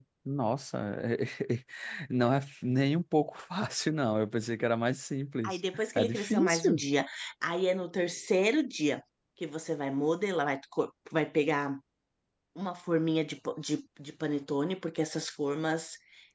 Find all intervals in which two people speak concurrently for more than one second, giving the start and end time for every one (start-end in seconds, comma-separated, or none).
5.4-6.8